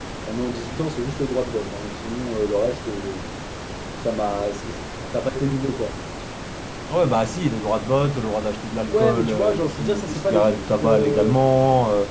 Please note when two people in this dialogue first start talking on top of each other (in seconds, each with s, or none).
8.9 s